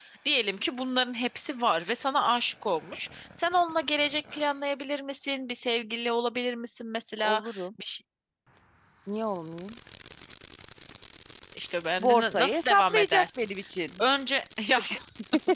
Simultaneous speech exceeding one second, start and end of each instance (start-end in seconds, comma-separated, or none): 12.0-13.4